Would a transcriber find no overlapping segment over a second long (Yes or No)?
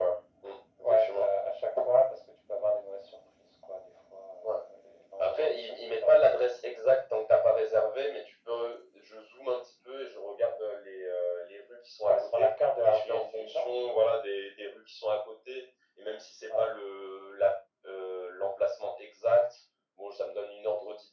No